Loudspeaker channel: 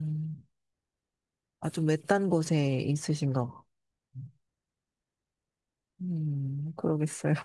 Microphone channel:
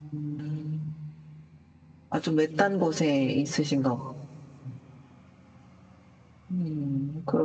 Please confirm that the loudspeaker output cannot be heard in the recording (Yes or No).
No